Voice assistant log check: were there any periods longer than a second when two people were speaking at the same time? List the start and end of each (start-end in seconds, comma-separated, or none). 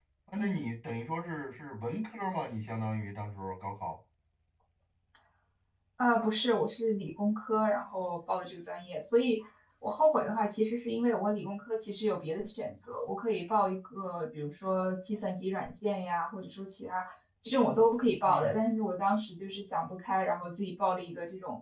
none